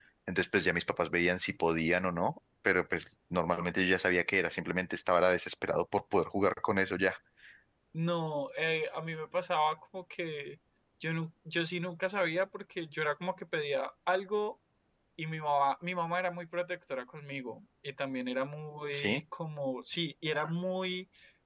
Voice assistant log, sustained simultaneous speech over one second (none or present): none